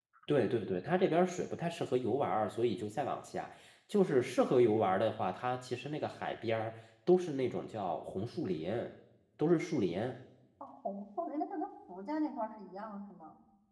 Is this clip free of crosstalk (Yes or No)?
Yes